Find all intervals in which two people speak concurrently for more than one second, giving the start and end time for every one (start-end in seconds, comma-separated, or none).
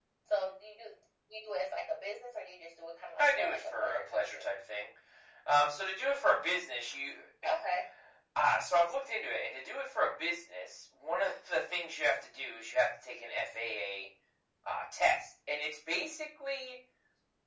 3.2-4.5